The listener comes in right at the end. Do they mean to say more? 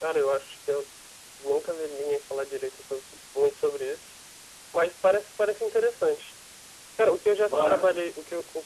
No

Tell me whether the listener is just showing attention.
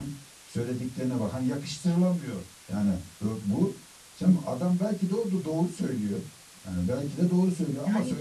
Yes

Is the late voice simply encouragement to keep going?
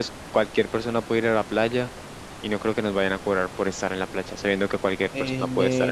No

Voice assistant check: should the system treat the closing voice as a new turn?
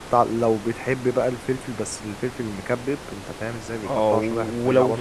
Yes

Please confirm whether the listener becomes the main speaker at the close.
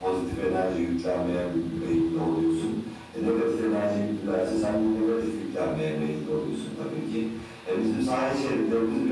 No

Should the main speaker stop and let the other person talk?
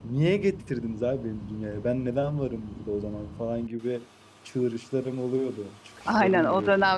Yes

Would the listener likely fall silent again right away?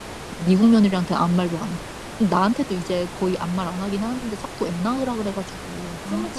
No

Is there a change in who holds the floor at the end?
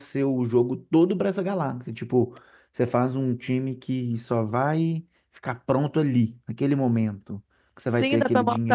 Yes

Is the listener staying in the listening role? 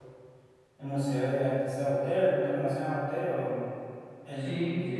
No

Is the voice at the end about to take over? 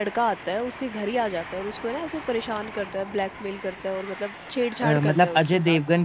Yes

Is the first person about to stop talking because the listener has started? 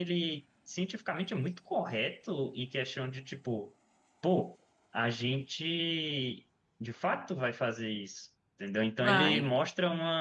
No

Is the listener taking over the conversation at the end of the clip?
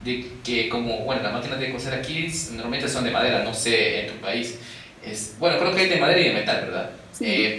No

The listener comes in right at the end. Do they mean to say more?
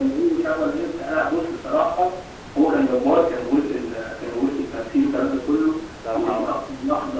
No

